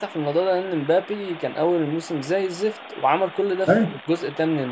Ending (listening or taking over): listening